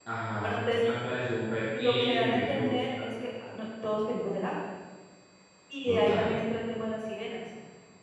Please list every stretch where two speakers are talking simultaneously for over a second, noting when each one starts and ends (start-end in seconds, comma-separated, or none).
1.8-3.1